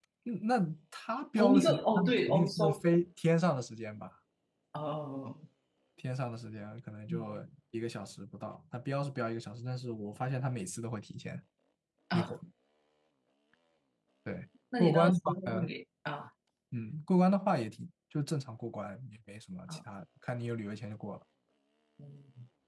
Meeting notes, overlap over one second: present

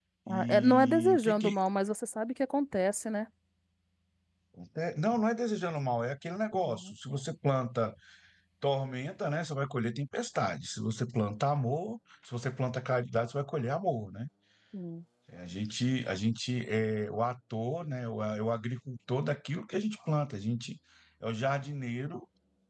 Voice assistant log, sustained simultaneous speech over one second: present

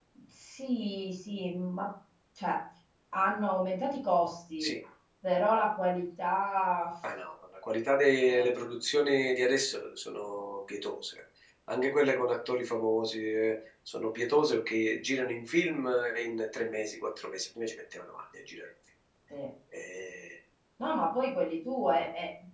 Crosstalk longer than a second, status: none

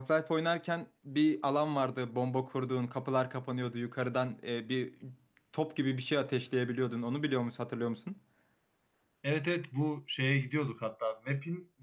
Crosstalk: none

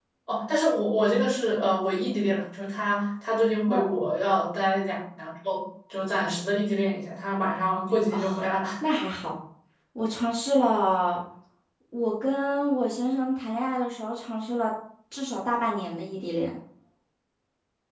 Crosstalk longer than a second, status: none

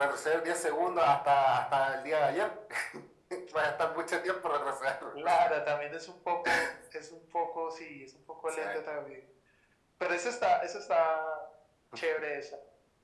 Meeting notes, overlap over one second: none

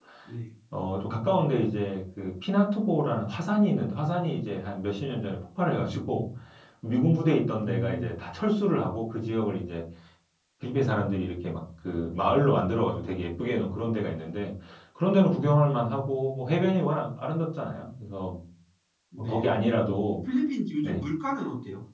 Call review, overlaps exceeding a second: none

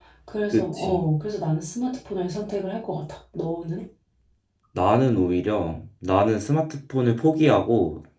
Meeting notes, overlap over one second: none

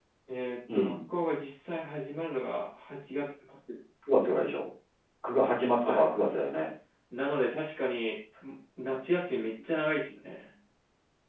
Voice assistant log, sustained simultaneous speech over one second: none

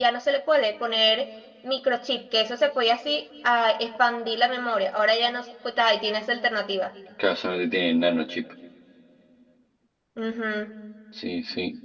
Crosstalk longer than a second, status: none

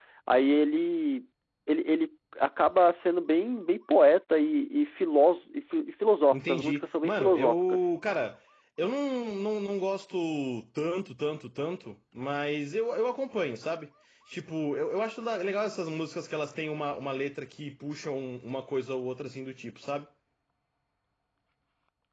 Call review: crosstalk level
present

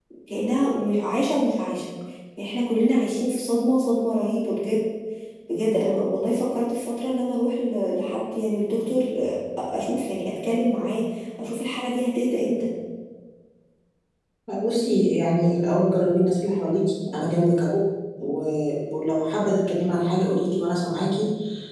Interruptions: none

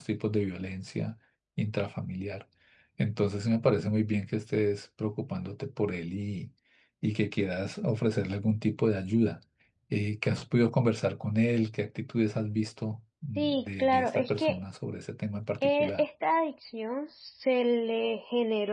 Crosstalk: present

